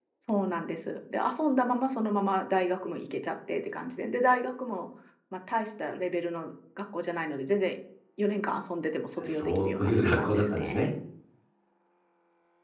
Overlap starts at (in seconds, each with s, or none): 9.2 s